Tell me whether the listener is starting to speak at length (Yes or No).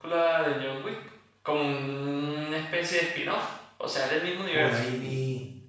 Yes